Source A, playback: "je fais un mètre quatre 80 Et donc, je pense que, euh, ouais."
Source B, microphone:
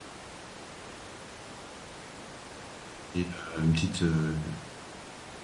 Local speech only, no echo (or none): Et euh, une petite, euh,